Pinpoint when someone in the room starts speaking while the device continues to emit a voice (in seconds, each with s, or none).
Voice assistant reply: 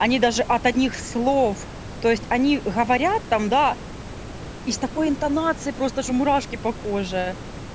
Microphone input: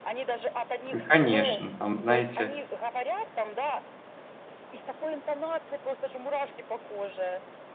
0.9 s